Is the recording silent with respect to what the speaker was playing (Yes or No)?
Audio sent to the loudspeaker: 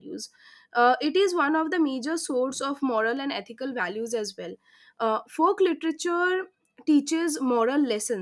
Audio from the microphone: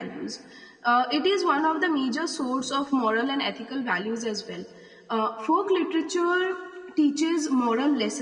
No